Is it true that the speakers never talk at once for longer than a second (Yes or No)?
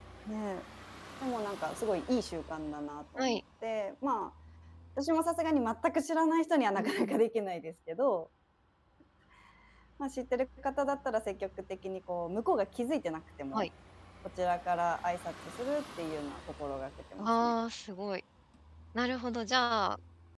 Yes